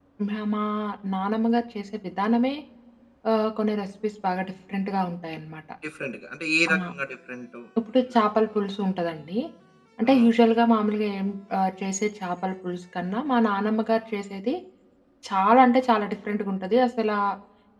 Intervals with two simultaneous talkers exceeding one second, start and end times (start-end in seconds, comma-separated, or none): none